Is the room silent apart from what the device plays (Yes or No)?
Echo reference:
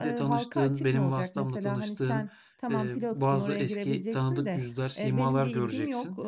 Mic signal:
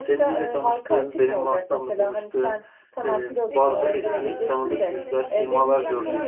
No